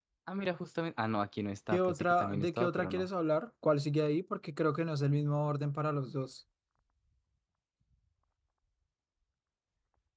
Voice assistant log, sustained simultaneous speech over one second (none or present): present